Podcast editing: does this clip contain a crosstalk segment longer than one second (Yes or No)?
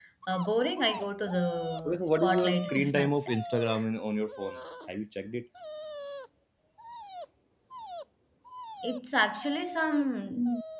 Yes